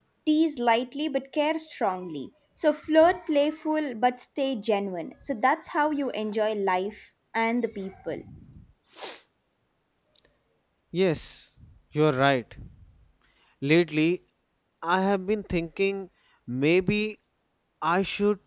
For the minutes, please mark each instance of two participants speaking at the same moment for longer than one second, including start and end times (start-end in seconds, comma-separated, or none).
none